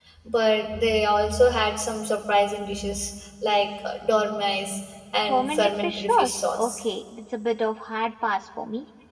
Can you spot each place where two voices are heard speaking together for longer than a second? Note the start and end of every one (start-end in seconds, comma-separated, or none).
5.3-6.8